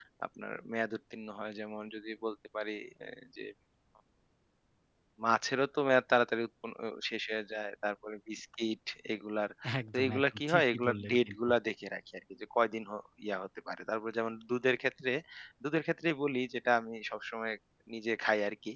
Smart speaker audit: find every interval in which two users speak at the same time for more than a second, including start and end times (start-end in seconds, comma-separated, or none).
9.9-11.5